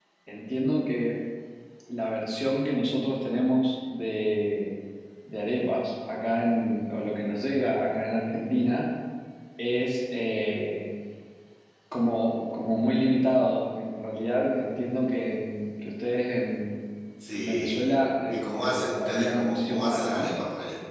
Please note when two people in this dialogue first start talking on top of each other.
17.4 s

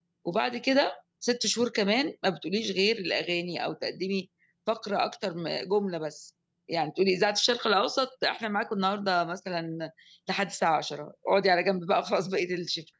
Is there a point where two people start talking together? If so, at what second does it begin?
none

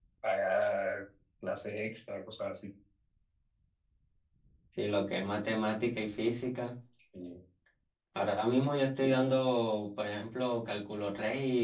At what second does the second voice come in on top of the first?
none

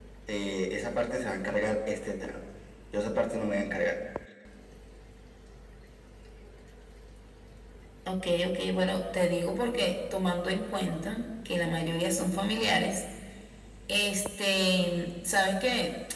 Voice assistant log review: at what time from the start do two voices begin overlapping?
none

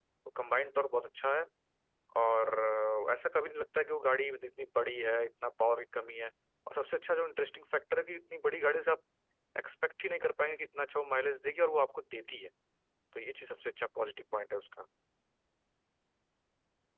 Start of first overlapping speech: none

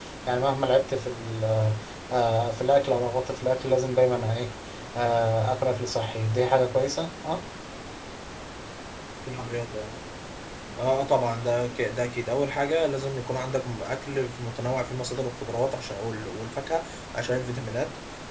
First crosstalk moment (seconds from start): none

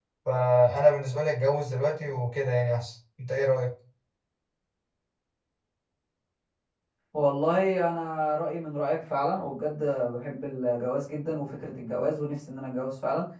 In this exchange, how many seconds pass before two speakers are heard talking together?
none

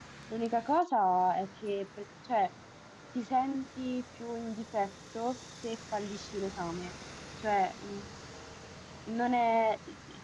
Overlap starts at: none

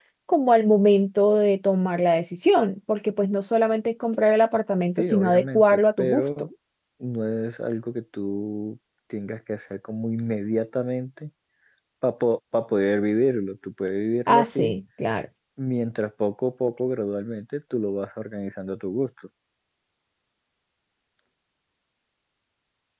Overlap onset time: 5.0 s

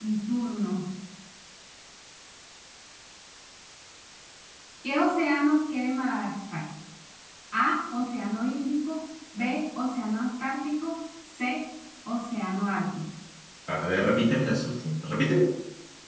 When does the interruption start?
none

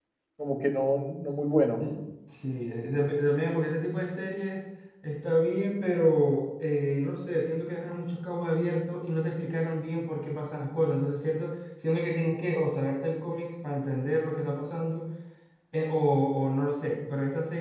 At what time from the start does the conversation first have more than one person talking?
none

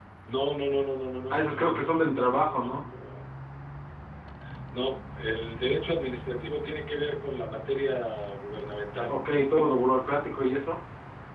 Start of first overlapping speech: 1.3 s

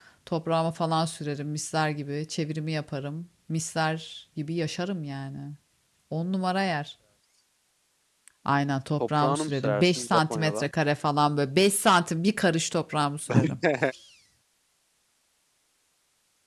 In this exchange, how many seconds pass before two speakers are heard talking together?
9.2 s

